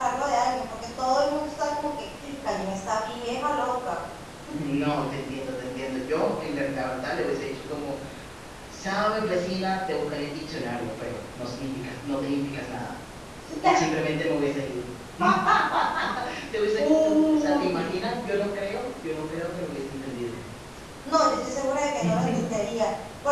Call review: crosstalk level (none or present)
present